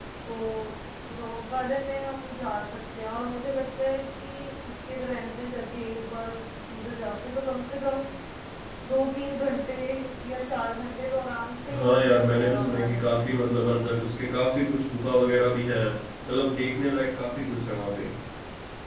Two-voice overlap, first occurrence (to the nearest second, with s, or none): 12 s